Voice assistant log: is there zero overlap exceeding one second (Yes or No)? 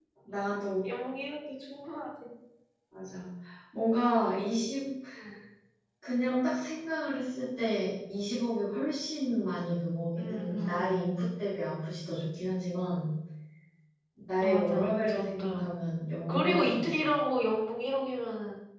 No